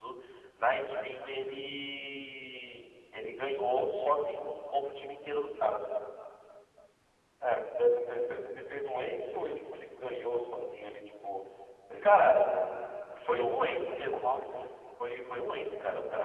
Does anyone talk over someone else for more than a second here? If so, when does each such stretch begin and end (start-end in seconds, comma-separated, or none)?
13.1-14.3